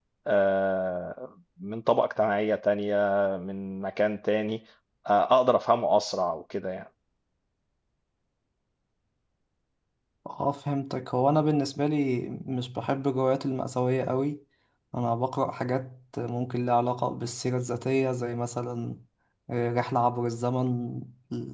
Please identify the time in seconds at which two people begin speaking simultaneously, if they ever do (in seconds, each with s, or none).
none